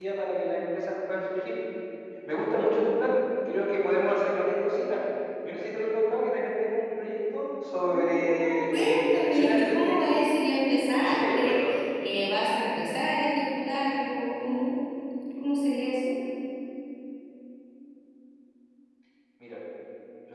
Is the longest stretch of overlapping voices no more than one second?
No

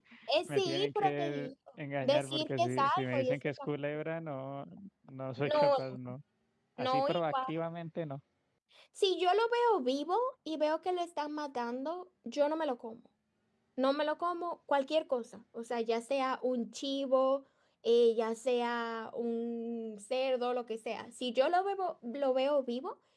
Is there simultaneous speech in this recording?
Yes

